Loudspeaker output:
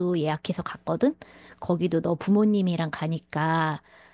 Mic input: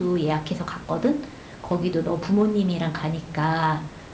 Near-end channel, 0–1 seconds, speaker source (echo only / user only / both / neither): echo only